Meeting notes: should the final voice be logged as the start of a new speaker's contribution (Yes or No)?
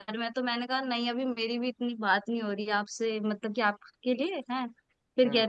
No